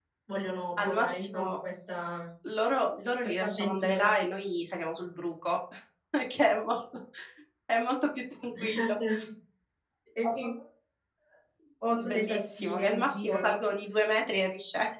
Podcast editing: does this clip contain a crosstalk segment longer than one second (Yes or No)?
Yes